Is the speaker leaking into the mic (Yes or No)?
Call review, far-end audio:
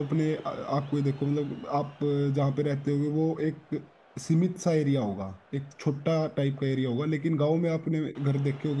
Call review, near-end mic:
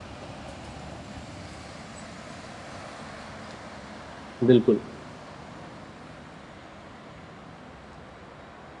No